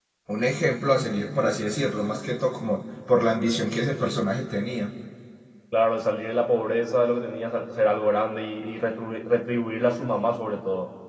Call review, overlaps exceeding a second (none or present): none